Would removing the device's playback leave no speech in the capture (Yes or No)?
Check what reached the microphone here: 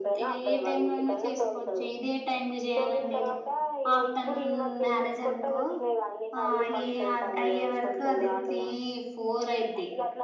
No